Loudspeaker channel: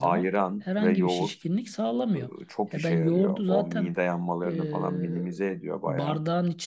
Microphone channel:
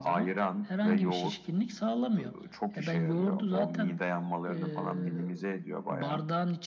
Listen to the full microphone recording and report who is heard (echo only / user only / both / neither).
echo only